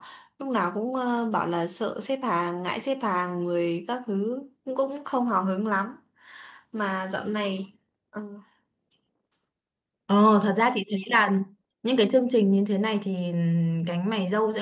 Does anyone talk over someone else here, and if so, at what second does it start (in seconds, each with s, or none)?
none